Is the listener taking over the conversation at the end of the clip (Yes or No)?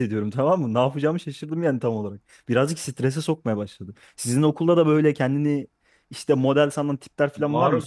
Yes